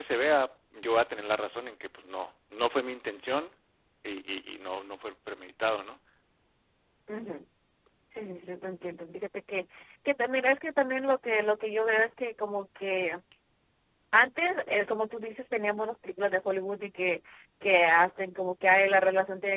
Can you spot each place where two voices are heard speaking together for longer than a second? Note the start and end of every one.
none

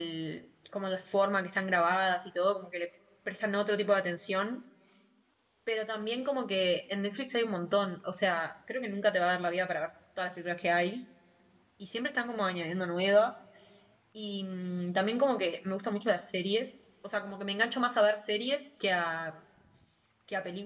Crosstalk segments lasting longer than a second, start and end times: none

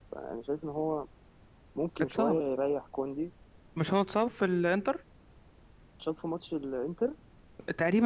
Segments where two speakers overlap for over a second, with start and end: none

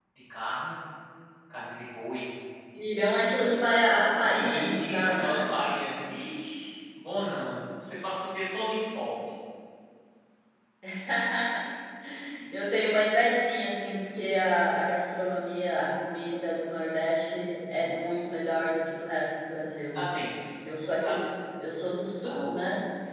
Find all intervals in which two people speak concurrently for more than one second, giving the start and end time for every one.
4.2-5.5

